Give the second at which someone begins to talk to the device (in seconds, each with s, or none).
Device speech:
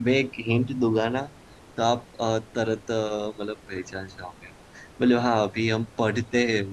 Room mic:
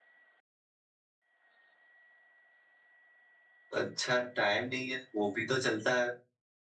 3.8 s